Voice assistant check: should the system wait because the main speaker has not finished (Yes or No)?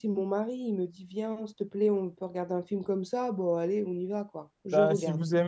No